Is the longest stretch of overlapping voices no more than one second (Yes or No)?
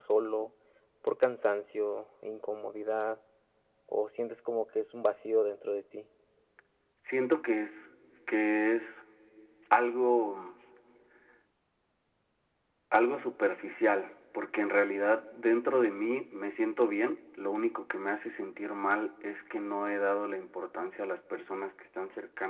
Yes